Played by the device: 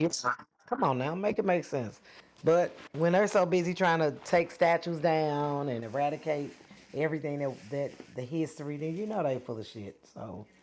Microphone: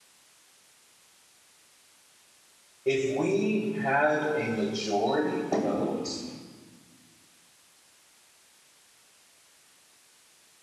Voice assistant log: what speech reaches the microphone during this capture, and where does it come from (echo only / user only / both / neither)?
user only